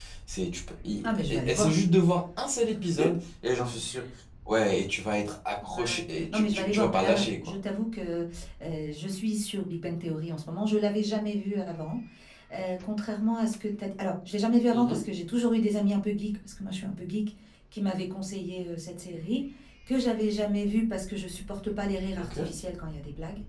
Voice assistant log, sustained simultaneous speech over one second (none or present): present